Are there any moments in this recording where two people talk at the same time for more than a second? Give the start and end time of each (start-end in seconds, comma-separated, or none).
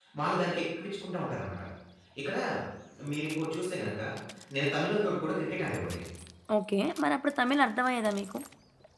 none